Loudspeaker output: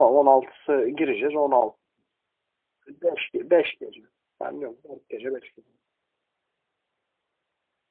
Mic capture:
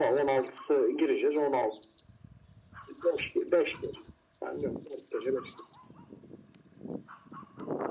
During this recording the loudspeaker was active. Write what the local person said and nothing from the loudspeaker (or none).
none